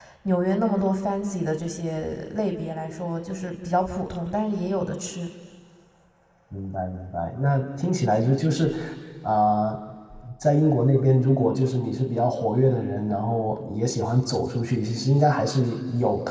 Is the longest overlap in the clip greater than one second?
No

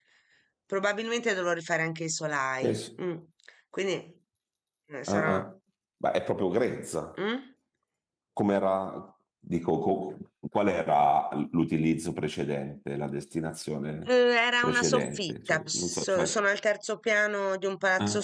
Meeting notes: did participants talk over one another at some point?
Yes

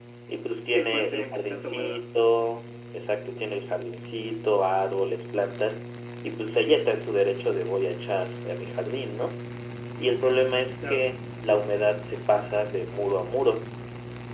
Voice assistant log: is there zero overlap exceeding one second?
No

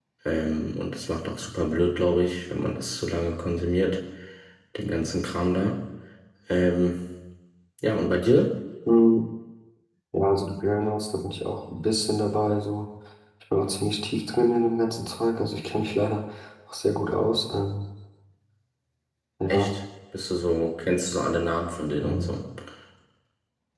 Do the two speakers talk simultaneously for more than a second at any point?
No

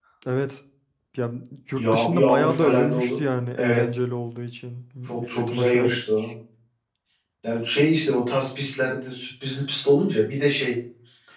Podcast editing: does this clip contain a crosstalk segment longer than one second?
Yes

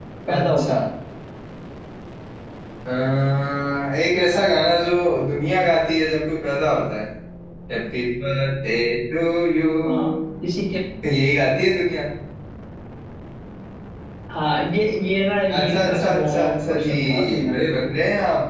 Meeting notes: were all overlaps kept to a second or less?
No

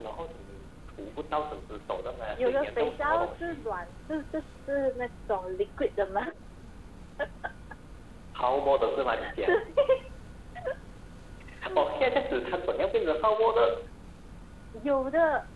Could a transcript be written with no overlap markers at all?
No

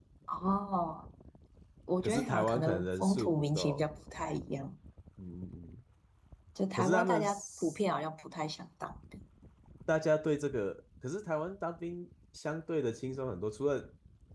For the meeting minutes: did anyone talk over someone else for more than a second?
Yes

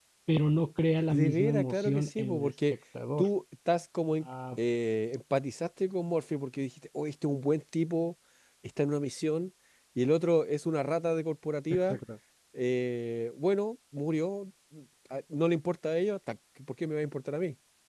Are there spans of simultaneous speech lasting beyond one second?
Yes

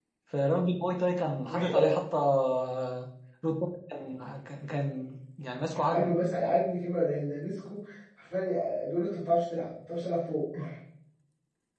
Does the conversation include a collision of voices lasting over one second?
No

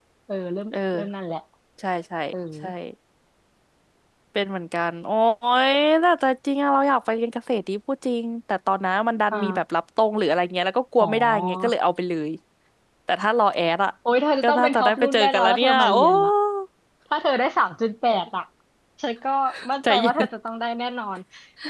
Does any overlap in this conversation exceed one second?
Yes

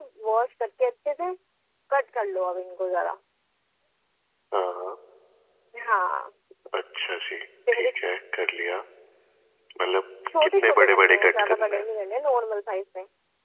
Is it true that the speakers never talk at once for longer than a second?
No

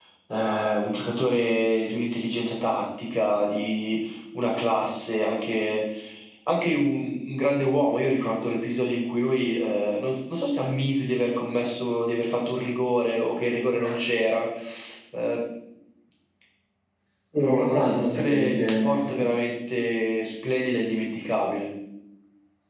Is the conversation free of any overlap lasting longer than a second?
No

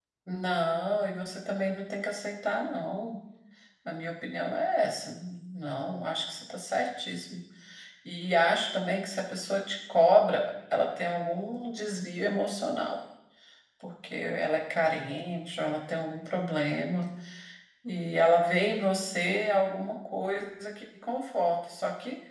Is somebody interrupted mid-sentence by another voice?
No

